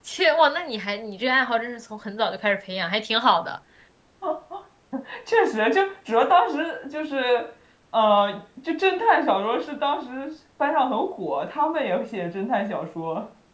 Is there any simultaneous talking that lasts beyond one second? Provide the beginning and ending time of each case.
none

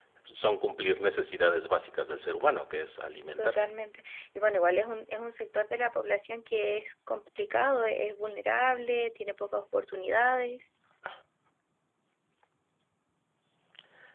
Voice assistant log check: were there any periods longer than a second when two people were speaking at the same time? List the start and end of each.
none

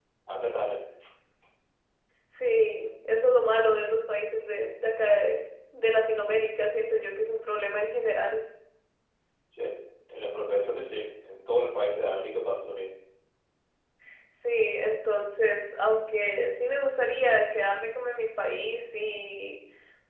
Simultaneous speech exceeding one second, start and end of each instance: none

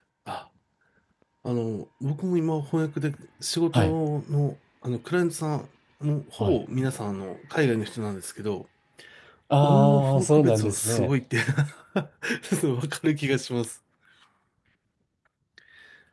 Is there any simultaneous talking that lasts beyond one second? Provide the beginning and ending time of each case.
9.6-11.1

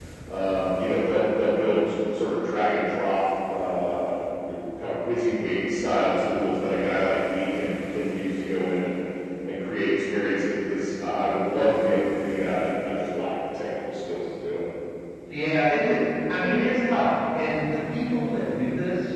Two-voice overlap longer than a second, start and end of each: none

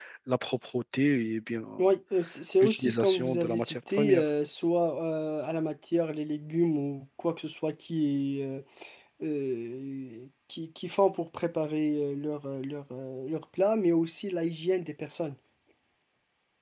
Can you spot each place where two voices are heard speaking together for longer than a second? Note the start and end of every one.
2.6-4.2

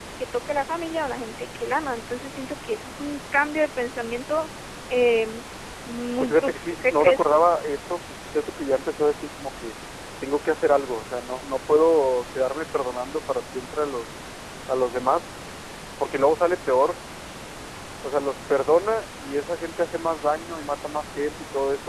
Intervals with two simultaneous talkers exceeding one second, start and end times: 6.2-7.4

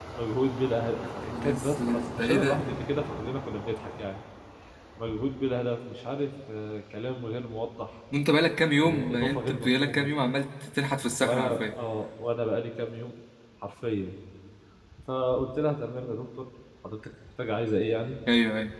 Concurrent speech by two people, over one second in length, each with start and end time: 1.2-2.6, 8.8-10.1

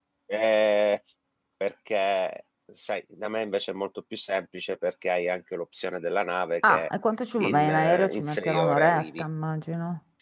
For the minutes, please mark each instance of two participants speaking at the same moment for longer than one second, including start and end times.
7.4-9.2

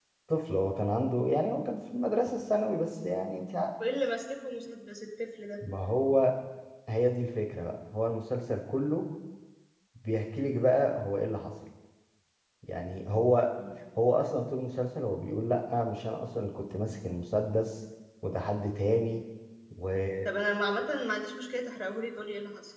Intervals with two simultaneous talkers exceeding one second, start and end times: none

